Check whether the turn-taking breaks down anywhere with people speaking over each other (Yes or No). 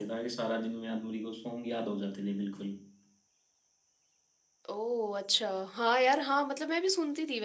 No